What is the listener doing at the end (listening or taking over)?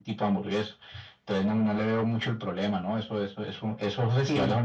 taking over